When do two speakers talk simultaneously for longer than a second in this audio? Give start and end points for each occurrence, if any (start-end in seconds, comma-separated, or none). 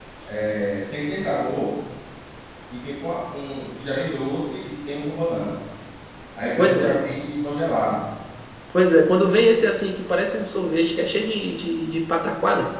none